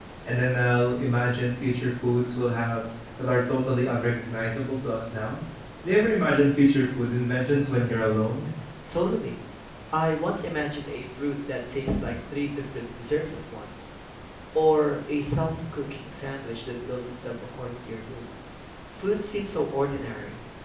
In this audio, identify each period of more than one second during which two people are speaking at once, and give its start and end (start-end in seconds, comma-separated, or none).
none